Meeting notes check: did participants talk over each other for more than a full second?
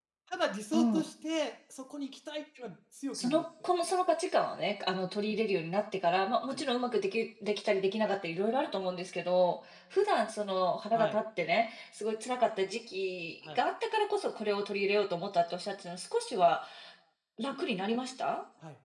No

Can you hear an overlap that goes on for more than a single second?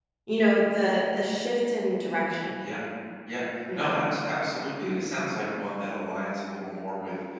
No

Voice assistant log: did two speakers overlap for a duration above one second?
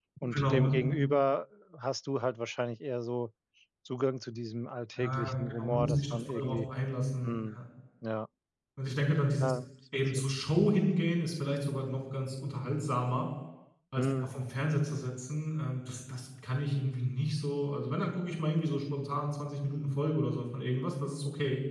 Yes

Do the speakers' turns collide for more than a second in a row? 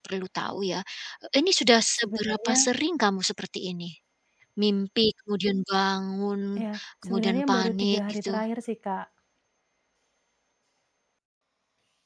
Yes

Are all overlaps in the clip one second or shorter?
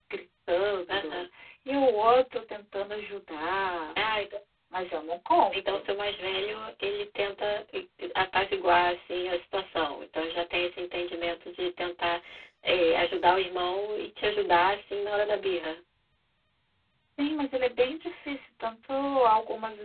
Yes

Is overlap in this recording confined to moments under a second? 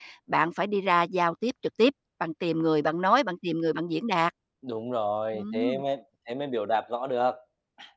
Yes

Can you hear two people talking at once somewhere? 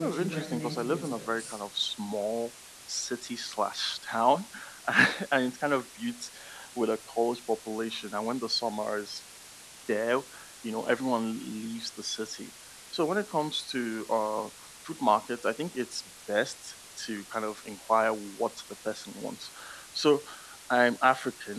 Yes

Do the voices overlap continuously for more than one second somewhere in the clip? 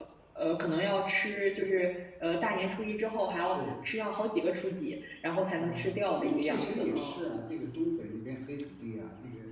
Yes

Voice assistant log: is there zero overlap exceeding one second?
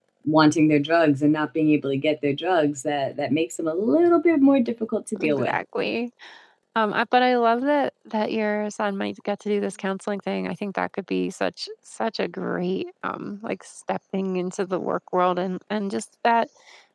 Yes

